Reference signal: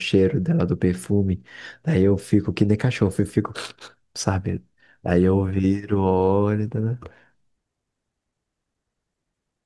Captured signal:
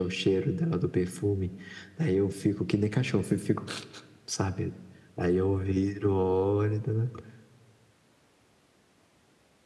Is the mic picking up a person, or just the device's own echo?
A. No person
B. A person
A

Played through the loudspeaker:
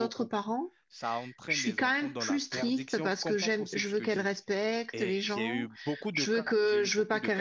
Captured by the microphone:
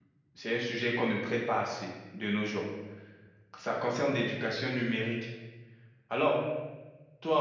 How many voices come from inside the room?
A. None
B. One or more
B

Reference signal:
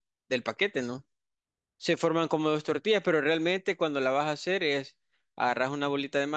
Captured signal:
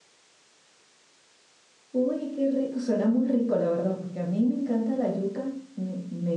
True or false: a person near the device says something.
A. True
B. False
A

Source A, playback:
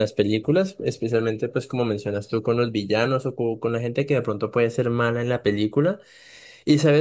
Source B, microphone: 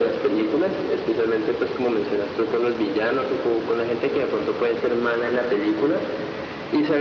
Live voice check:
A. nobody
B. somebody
A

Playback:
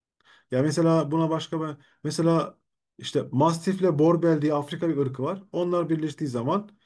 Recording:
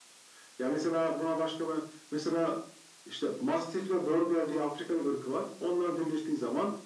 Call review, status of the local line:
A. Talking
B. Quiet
B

